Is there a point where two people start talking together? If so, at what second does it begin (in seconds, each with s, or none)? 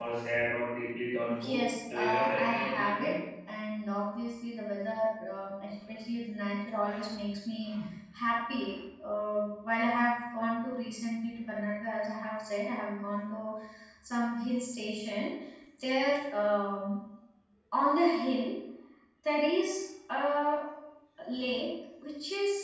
1.3 s